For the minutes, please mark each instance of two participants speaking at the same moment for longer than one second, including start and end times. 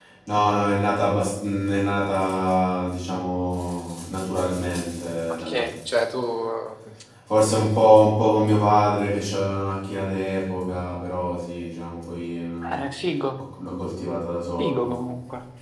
none

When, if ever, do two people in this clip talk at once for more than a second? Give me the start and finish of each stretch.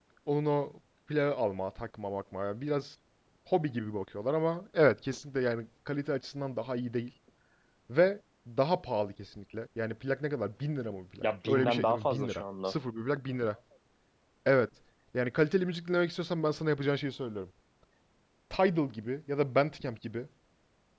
11.2-12.7

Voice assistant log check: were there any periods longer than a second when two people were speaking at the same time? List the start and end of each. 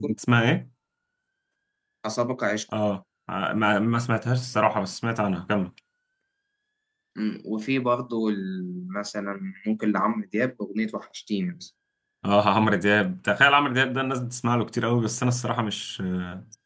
none

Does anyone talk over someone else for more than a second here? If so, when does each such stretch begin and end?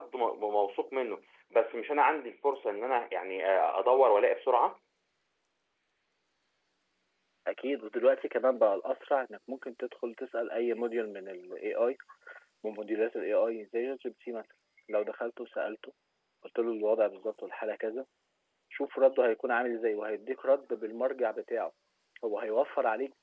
none

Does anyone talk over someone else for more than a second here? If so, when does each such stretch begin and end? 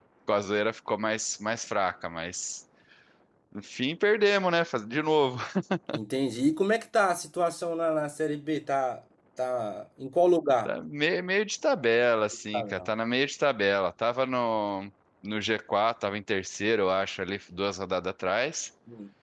none

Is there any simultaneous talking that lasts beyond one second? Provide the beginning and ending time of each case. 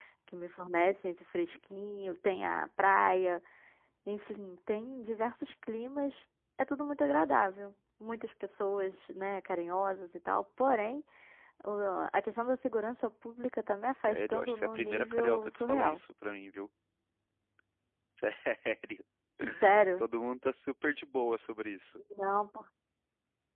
13.9-16.0

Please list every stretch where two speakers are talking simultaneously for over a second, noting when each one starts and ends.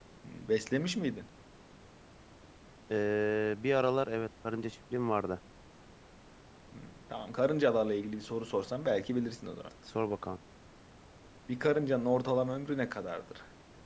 none

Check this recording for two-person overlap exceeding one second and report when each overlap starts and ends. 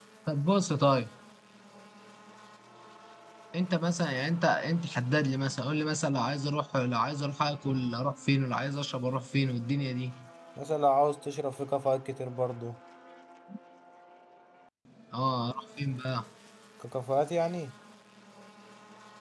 none

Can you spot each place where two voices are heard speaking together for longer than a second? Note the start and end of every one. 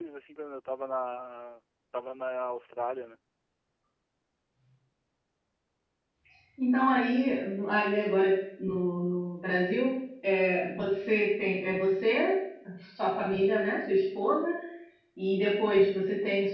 none

